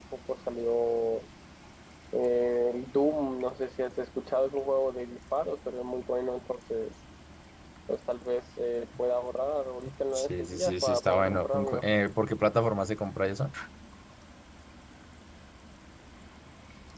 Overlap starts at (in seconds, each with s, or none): 10.2 s